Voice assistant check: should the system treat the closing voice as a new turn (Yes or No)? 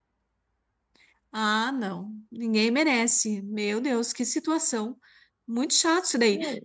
No